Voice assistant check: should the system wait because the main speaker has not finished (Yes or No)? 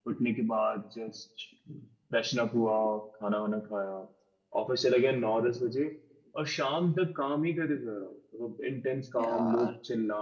No